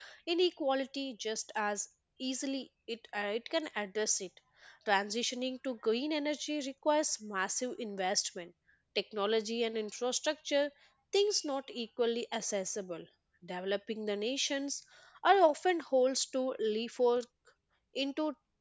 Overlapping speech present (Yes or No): No